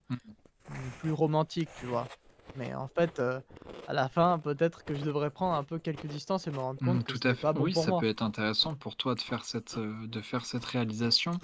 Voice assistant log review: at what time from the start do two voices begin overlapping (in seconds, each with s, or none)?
6.8 s